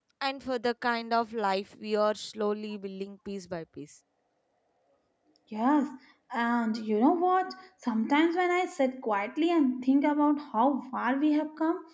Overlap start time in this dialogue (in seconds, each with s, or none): none